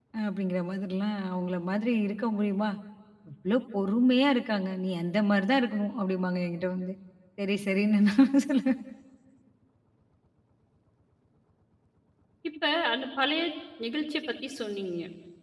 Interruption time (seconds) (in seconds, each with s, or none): none